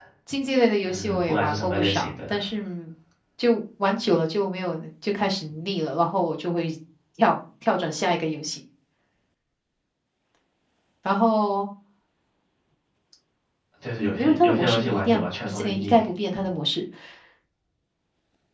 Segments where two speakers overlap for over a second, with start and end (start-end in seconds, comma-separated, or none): 0.8-2.3, 14.0-16.0